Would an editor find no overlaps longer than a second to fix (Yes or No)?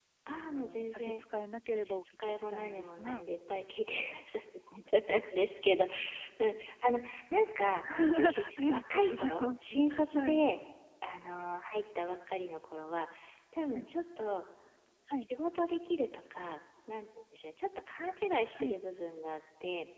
No